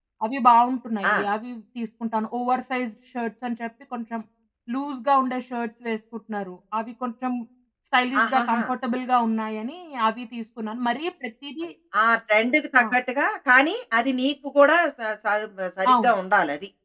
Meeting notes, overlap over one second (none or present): none